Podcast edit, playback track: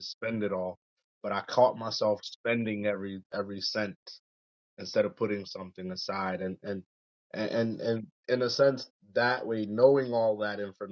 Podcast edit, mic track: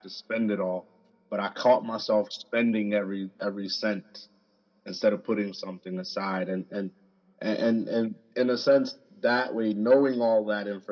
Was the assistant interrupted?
No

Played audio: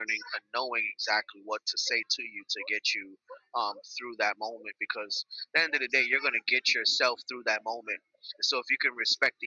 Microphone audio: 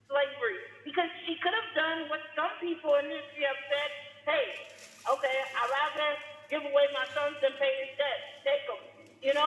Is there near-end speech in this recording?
Yes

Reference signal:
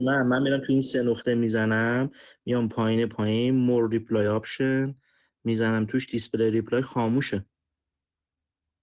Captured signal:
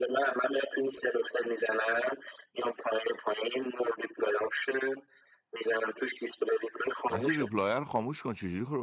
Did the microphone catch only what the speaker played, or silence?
No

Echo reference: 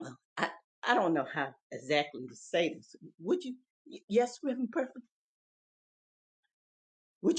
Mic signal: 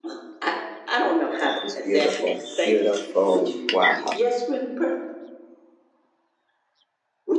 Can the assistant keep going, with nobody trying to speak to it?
No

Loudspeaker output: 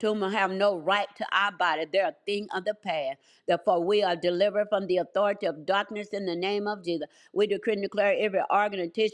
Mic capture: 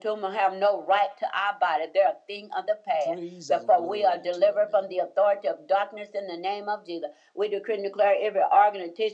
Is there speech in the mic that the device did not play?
Yes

